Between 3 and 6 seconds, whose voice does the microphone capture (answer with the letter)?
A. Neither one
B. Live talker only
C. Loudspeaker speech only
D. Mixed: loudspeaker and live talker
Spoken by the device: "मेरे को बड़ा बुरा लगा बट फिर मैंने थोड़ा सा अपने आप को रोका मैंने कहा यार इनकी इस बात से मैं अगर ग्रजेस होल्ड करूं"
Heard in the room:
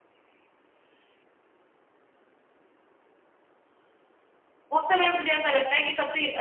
B